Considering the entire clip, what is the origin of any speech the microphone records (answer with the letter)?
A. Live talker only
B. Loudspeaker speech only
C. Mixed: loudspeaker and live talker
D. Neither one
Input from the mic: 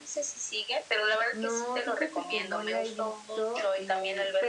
C